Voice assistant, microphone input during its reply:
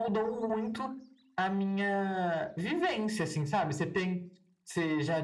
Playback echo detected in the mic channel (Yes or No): Yes